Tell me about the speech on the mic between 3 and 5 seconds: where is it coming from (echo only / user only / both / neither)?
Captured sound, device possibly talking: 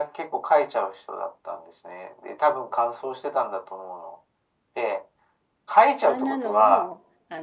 echo only